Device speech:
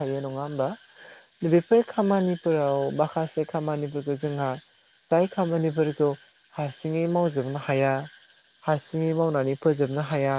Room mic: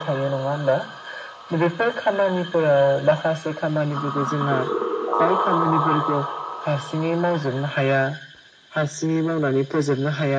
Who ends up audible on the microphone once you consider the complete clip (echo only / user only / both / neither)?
echo only